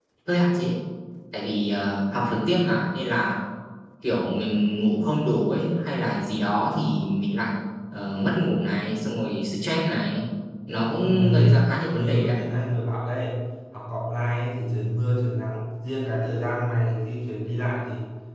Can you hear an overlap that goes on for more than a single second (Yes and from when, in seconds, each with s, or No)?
Yes, from 11.0 s